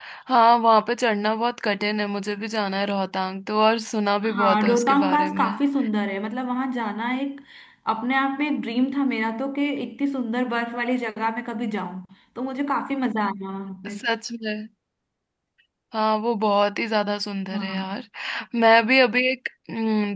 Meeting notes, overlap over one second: present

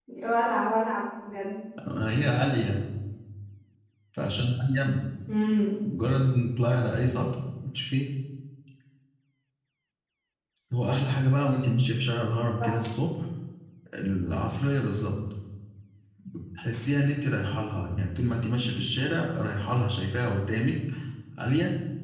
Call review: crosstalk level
none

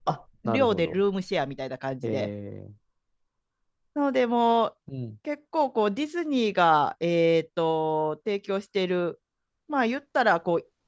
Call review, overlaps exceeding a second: none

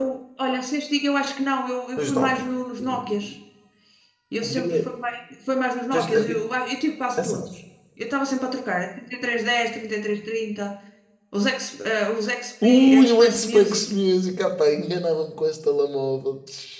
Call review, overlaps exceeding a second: present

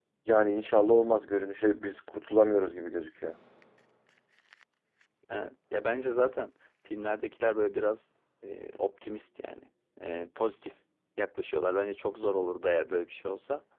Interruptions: none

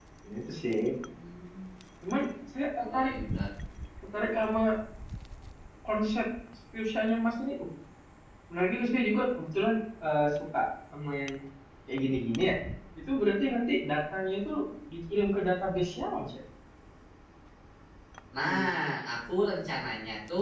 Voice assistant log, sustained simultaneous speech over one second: none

